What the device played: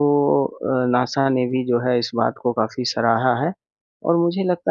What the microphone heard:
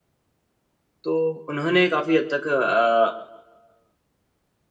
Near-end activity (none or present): present